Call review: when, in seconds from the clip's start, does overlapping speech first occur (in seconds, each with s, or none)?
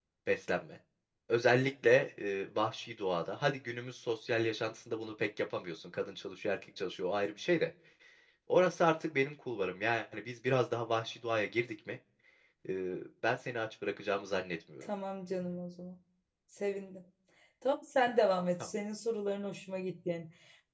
none